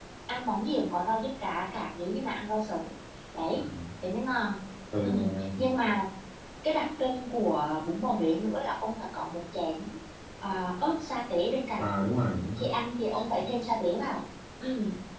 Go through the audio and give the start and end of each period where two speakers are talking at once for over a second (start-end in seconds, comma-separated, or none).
none